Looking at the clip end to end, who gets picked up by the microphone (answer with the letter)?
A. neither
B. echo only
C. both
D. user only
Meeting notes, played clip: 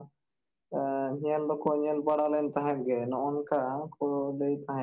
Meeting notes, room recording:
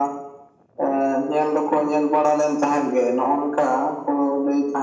B